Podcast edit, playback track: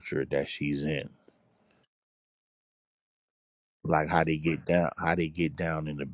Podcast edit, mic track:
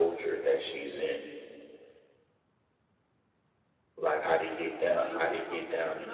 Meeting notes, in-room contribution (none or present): present